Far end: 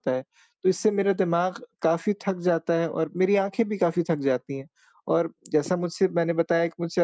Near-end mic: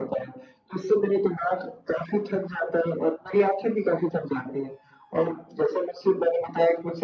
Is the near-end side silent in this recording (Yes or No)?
Yes